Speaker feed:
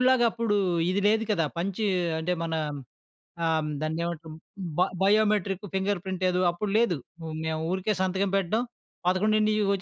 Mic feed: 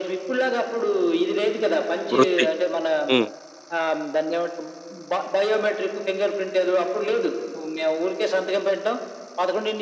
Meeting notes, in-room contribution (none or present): present